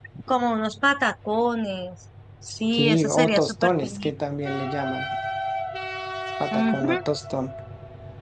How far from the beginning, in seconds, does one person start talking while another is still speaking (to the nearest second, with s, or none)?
3 s